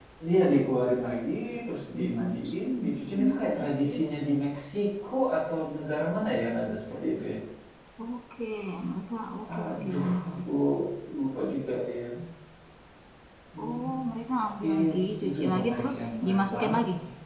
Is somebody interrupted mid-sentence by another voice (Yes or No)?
Yes